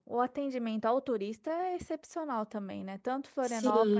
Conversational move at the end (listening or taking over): listening